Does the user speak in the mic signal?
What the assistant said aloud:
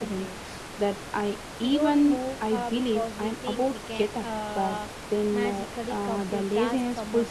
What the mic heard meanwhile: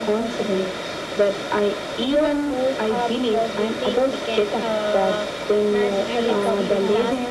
Yes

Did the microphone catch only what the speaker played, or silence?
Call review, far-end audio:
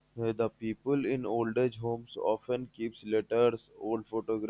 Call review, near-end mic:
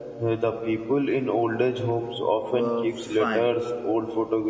No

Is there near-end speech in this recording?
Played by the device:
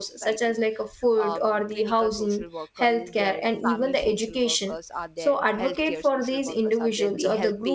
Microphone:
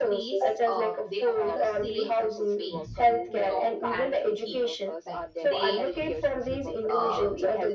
Yes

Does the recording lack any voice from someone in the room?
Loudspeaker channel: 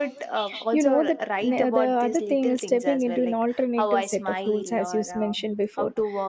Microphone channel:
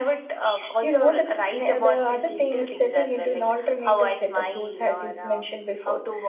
Yes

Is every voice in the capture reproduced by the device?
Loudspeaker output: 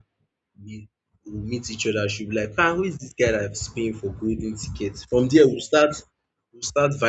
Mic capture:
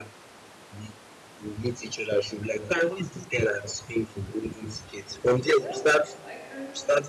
No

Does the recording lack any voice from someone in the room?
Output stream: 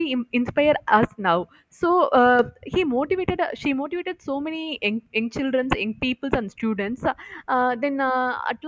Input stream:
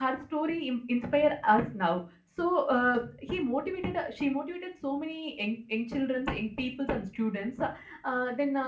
Yes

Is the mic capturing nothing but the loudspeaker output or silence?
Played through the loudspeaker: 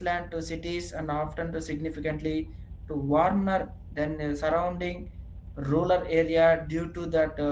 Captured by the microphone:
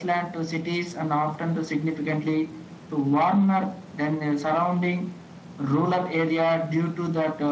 Yes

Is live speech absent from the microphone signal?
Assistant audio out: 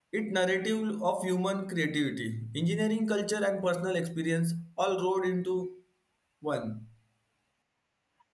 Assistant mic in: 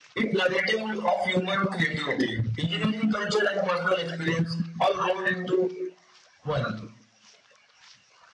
Yes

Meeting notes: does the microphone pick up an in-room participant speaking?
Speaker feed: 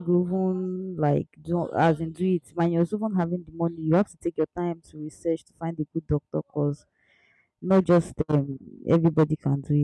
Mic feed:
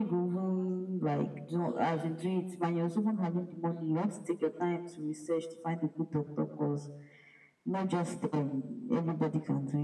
No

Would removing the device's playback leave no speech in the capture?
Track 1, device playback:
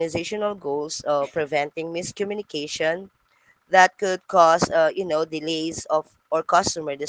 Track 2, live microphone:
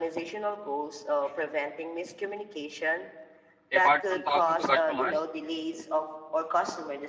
No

